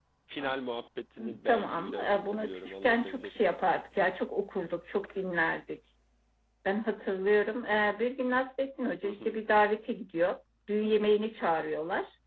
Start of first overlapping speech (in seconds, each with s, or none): 1.4 s